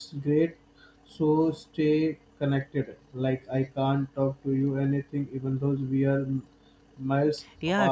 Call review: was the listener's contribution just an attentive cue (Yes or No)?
No